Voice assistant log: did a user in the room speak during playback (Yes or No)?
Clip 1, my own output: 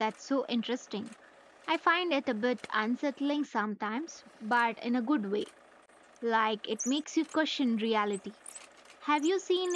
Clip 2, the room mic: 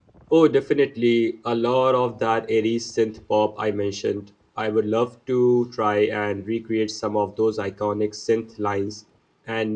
Yes